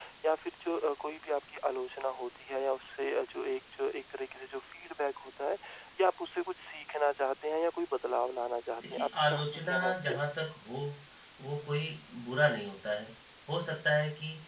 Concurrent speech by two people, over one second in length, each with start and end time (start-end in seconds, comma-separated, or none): 8.8-10.2